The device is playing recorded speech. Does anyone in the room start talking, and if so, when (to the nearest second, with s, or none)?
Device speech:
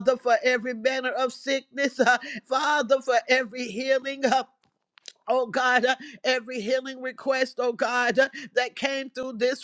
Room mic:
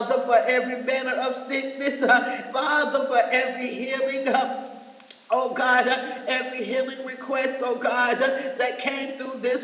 none